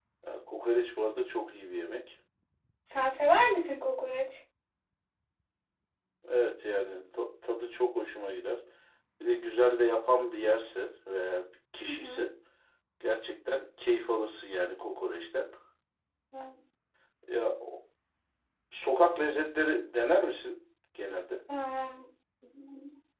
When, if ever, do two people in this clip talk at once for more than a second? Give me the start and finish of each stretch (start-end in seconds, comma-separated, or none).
none